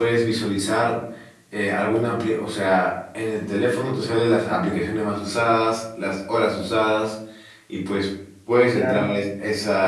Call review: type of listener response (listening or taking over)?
listening